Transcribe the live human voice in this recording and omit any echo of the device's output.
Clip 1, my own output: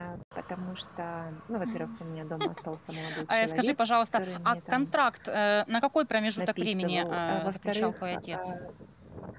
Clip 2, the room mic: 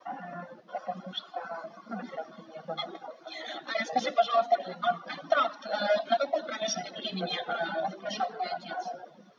none

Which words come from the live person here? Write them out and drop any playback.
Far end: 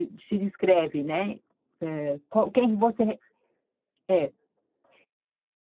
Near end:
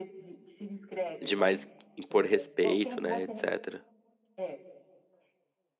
de mais impor respeito, né, etcétera.

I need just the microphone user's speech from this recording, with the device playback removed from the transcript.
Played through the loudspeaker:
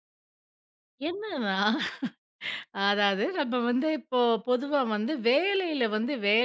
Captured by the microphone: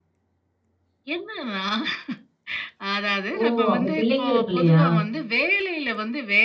ஓ! அப்ப பிள்ளைங்களுக்கு இல்லையா?

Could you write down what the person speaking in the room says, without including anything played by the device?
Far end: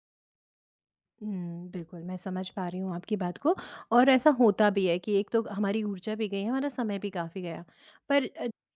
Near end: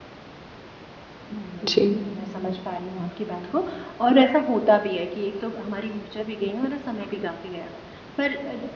जी।

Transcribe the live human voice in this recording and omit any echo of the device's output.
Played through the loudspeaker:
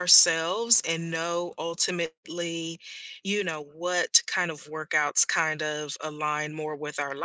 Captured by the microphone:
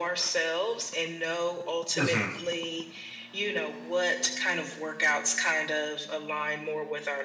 Mhm.

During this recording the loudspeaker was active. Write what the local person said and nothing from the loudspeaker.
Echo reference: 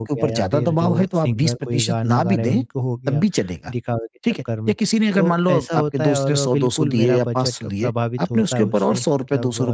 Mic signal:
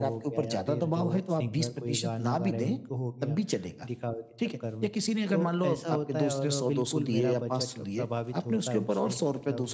none

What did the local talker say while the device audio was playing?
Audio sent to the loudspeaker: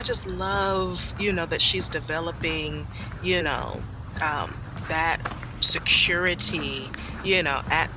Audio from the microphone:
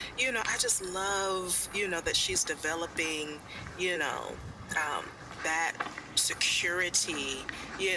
none

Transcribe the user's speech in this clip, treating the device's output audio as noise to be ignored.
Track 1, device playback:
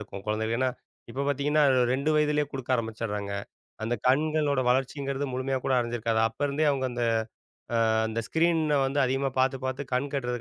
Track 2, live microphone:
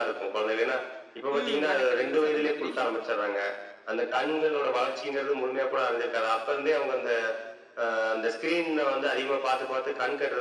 ம் மெனக்கெடணும் சொன்ன மாதிரி.

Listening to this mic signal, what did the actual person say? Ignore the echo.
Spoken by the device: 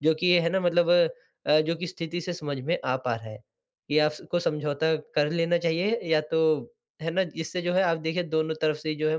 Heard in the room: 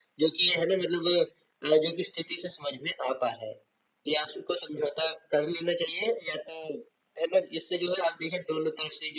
none

